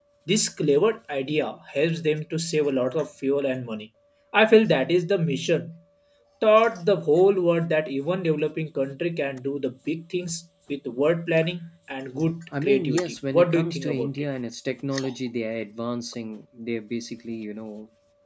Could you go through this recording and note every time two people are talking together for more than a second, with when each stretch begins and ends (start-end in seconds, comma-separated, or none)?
12.6-14.1